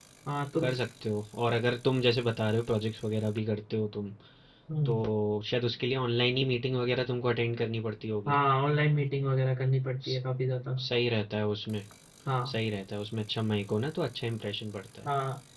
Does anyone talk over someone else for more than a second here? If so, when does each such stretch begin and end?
none

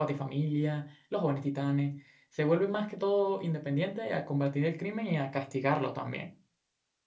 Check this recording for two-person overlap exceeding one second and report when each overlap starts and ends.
none

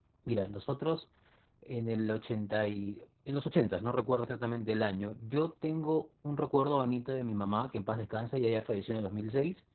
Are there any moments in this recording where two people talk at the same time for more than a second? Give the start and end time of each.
none

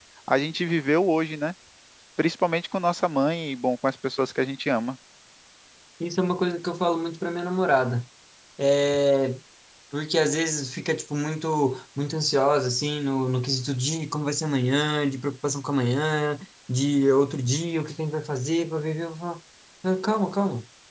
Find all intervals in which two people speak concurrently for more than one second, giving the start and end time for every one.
none

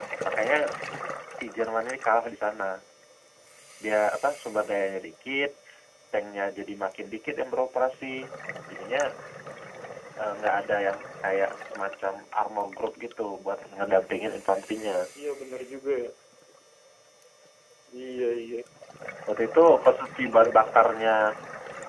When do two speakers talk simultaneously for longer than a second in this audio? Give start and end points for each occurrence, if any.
none

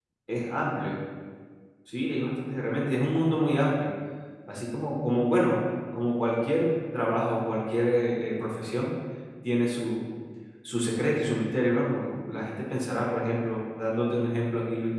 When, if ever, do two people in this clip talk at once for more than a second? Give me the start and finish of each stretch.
none

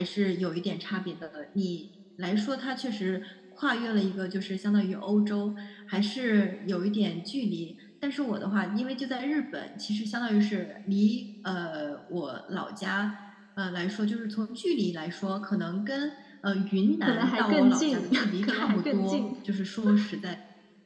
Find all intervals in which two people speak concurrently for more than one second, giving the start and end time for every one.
17.0-19.3

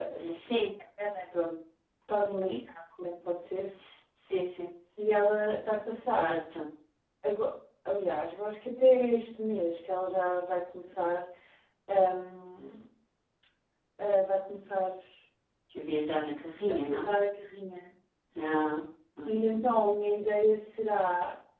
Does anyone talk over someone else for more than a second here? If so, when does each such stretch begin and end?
none

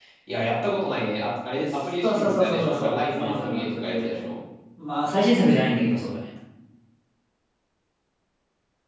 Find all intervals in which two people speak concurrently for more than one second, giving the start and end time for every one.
2.0-4.2

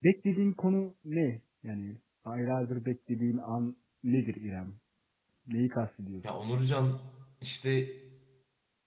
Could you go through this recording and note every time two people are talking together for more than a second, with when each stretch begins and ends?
none

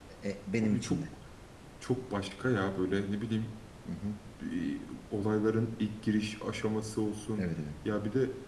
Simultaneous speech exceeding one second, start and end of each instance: none

